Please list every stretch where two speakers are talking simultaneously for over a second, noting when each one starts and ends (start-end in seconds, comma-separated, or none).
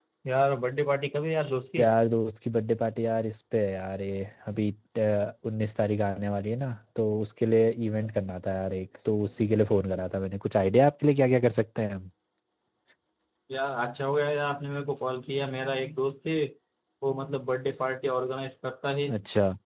none